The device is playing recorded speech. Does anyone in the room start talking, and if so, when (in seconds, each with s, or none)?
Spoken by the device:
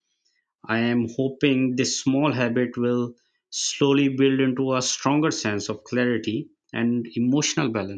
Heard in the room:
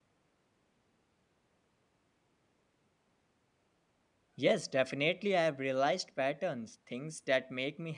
4.4 s